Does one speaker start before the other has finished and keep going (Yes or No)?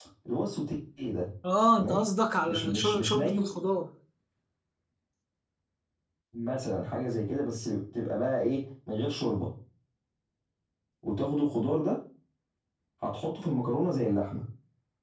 Yes